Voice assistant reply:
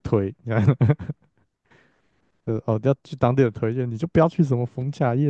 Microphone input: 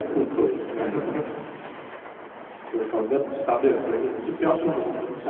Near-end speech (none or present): none